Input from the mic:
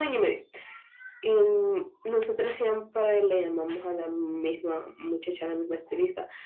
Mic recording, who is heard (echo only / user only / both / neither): echo only